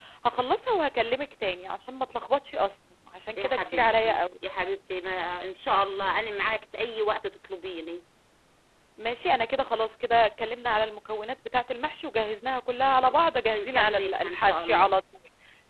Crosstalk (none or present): present